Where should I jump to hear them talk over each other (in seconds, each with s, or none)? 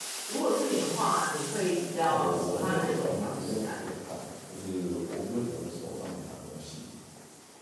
2.1 s